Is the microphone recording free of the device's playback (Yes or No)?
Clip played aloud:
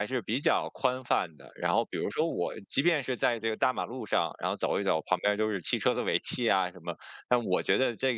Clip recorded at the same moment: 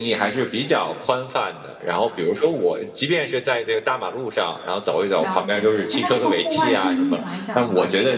No